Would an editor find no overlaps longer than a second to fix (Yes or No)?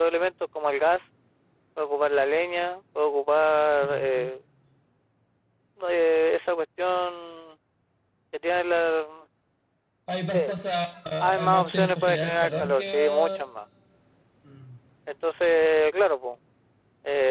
No